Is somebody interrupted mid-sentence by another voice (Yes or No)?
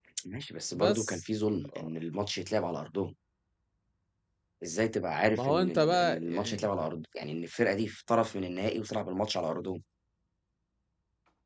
Yes